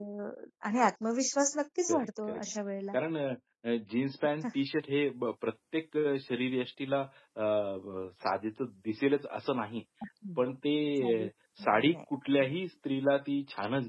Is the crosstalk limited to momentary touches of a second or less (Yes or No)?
Yes